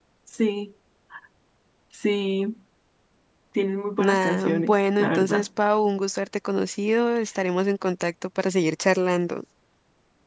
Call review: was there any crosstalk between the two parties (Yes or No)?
Yes